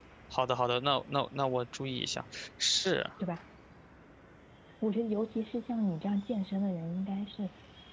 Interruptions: none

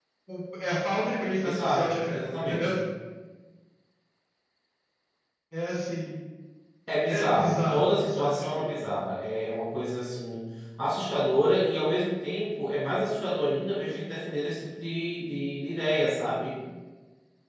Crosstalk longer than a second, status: present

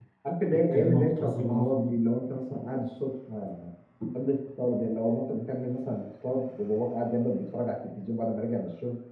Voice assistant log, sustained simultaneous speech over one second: present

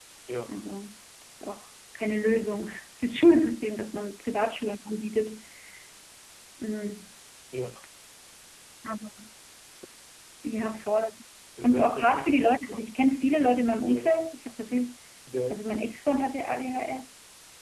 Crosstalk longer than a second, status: present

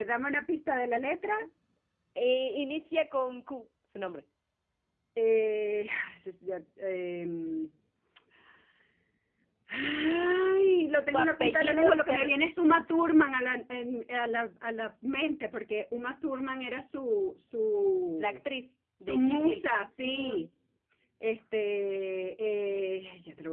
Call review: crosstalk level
present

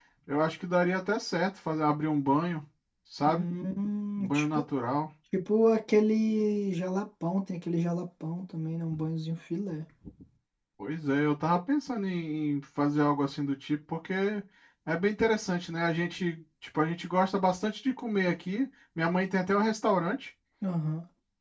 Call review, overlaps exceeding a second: none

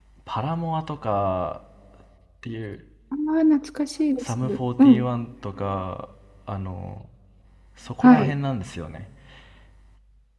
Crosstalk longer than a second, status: none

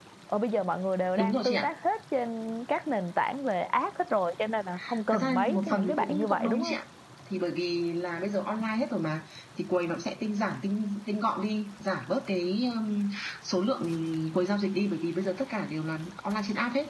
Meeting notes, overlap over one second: present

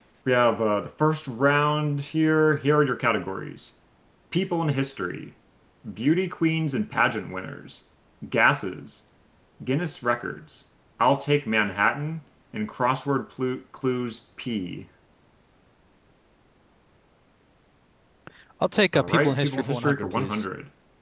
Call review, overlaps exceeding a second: present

